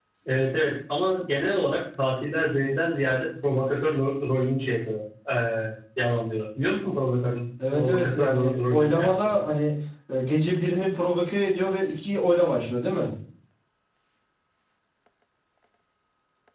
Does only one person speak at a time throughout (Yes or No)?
No